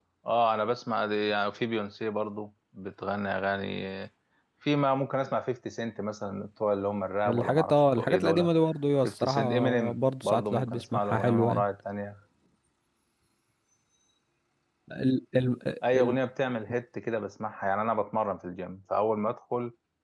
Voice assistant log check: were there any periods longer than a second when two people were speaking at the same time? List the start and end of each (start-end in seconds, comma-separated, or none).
7.3-8.5, 9.0-11.6